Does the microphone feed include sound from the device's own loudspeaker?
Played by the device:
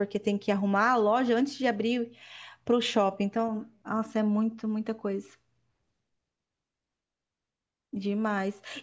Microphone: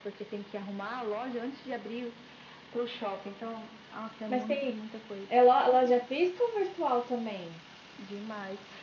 Yes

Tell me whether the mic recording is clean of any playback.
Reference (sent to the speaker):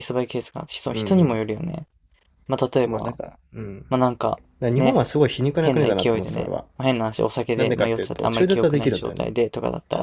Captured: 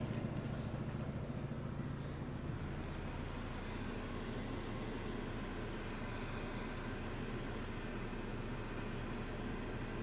Yes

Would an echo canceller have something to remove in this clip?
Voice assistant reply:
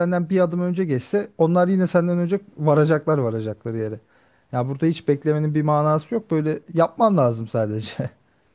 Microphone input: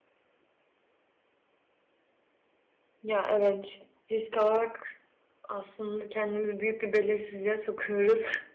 No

